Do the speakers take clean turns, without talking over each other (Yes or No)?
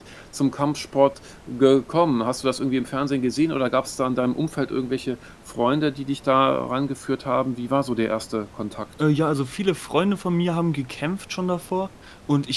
Yes